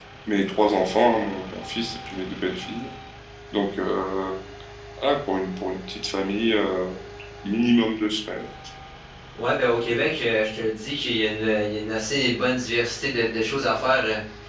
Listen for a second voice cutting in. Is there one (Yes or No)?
No